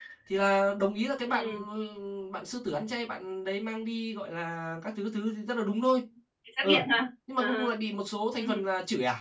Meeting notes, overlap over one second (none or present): none